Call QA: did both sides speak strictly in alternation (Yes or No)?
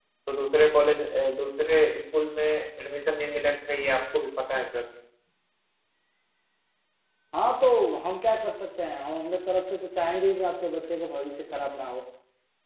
Yes